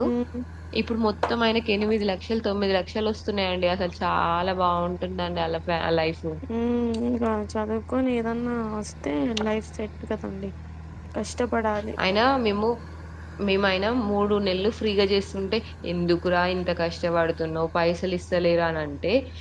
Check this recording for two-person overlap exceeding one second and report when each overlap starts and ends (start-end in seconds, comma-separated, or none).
none